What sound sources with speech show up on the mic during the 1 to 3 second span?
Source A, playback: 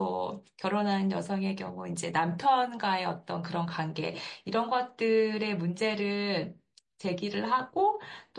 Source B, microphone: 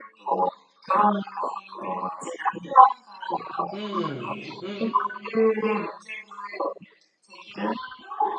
echo only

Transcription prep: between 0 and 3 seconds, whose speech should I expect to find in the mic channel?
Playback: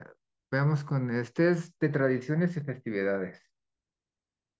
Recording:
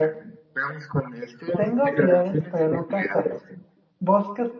both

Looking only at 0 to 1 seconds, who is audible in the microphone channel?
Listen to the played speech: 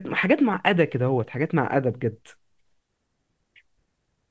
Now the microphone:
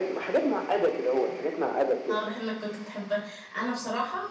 echo only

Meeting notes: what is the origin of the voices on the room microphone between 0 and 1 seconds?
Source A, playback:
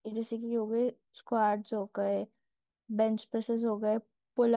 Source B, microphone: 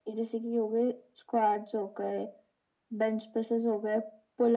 echo only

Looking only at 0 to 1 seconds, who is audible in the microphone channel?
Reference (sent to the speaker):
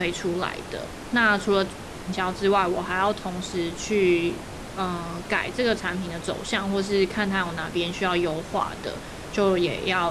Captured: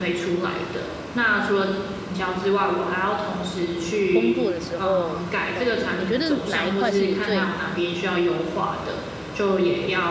echo only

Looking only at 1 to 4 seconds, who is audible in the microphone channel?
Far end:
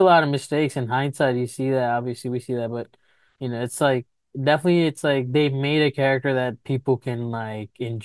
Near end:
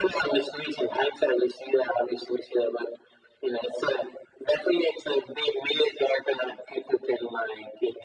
echo only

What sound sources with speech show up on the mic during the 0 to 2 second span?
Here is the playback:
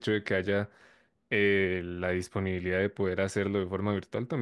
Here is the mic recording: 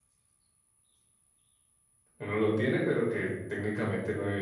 neither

